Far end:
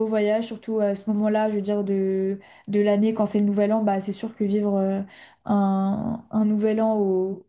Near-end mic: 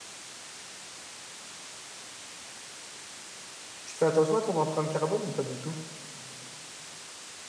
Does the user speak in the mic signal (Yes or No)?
Yes